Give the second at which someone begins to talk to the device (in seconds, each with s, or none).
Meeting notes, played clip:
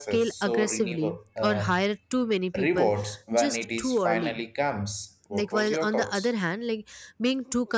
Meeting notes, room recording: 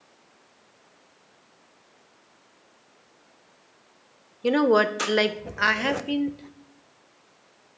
4.4 s